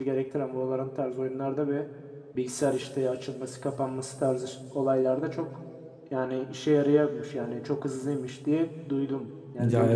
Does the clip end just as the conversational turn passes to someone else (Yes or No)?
Yes